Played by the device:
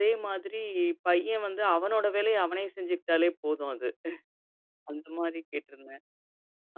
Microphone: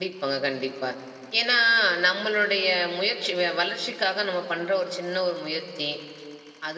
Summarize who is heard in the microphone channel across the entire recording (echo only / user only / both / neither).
user only